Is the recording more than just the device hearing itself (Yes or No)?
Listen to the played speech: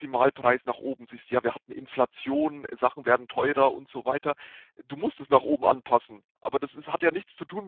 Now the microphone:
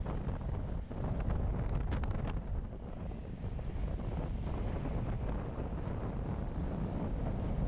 No